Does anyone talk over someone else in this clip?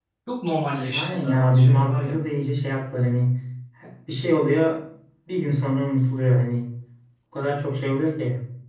Yes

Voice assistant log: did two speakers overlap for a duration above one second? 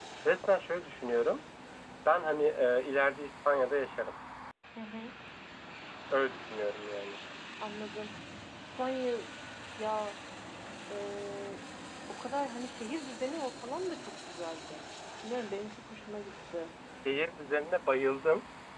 No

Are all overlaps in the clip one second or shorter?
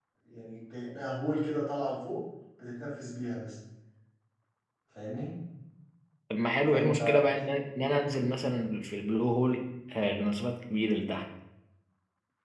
Yes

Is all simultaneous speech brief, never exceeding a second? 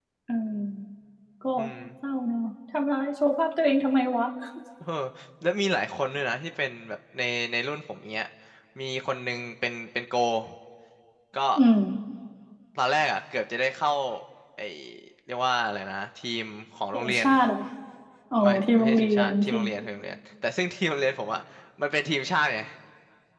No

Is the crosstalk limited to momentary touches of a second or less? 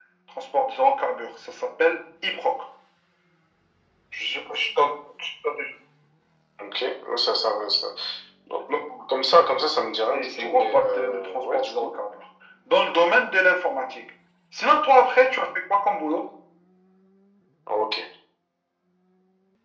No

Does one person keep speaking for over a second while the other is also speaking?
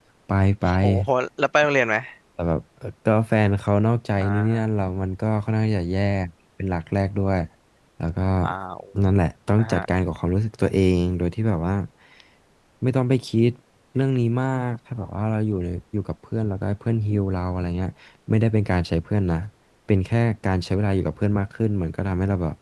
No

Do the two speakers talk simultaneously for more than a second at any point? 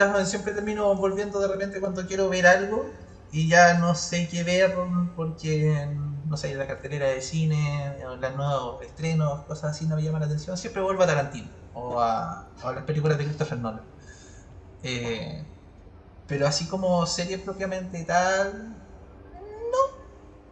No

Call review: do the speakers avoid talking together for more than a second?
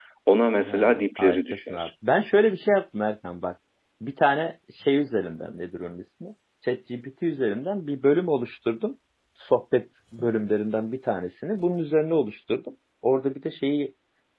No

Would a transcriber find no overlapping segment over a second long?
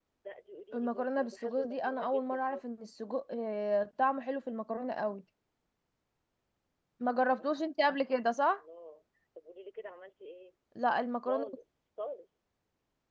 No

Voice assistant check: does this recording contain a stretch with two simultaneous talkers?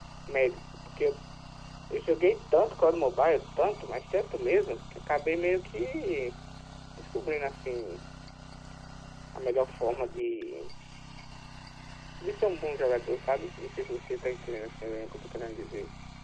No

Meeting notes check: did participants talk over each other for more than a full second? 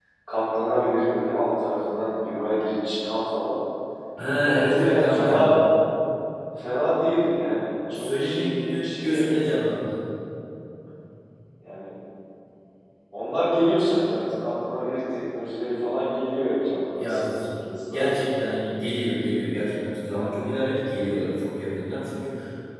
Yes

